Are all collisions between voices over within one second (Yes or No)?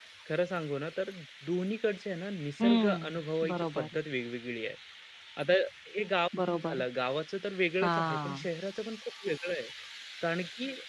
No